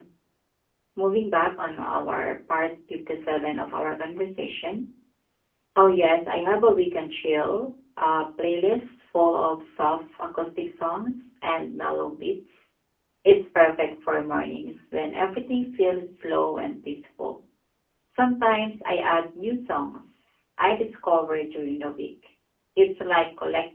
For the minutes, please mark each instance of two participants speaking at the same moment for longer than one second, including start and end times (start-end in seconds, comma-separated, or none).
none